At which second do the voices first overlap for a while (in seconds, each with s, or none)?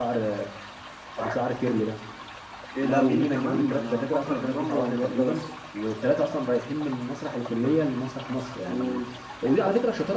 2.8 s